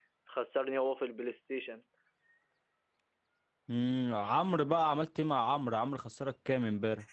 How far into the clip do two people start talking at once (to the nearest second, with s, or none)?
none